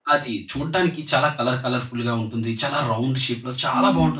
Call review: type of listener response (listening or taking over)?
taking over